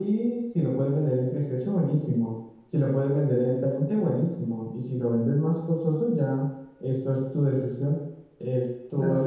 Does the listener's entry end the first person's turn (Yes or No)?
Yes